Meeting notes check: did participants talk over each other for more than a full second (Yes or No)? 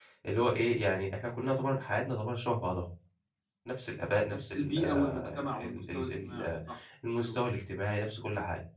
Yes